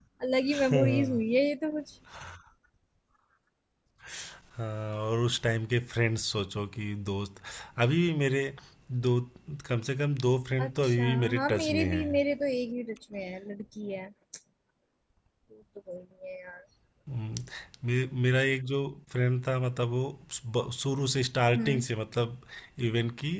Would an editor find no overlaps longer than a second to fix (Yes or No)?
No